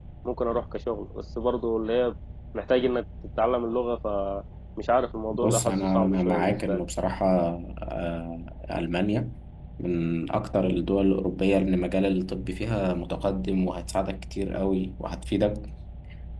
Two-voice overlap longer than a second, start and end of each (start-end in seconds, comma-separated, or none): 5.3-6.8